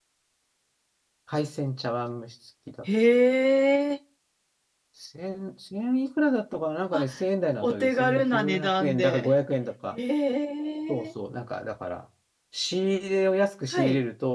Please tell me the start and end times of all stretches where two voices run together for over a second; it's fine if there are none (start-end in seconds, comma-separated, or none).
7.6-9.3